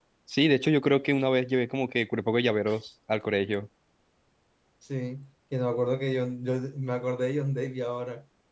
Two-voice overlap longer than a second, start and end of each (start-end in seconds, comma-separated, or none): none